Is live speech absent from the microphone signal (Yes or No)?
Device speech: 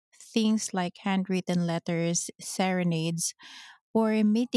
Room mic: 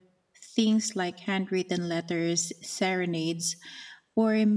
Yes